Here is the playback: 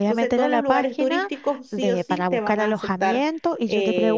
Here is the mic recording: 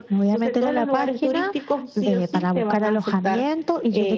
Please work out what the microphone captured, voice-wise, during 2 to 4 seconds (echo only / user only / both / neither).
echo only